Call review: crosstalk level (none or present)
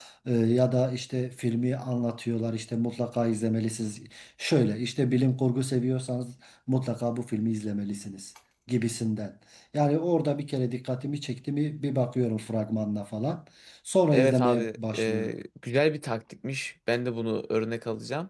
present